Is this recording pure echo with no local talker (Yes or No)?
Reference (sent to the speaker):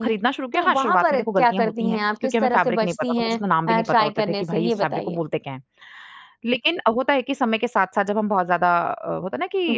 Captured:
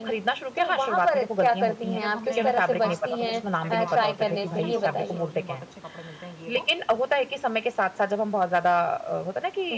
No